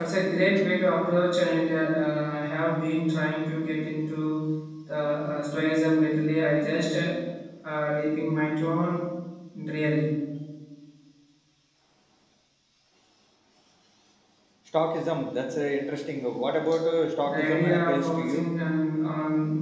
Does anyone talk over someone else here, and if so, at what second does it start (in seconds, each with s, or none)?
17.2 s